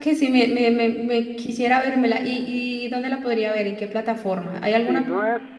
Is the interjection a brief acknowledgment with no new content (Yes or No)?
No